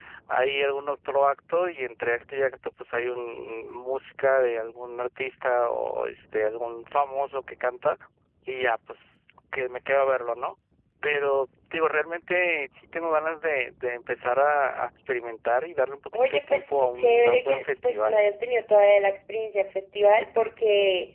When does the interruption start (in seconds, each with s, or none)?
16.1 s